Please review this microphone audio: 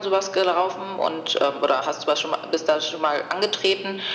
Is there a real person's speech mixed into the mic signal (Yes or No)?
No